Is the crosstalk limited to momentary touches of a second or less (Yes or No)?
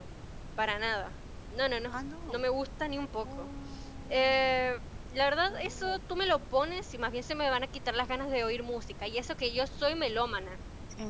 Yes